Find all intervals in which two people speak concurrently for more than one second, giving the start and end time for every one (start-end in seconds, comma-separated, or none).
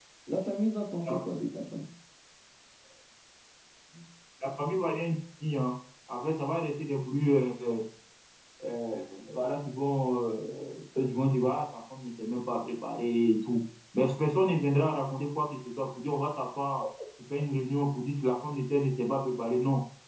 none